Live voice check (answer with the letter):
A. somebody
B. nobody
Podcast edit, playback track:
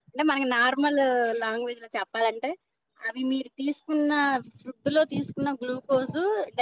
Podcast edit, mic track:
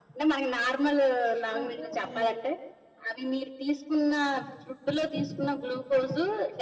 A